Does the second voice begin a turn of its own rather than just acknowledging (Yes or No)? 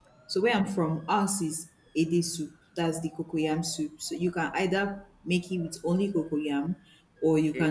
No